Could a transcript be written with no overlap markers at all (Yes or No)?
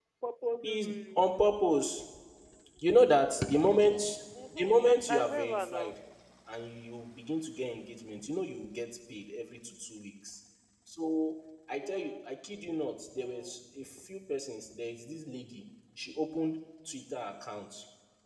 No